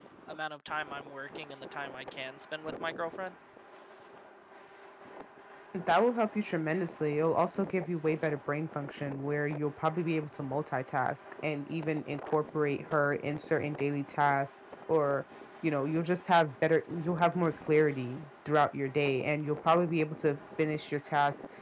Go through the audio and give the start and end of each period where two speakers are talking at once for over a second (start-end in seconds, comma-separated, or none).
none